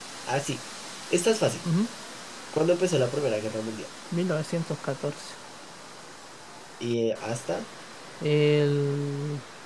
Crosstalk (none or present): none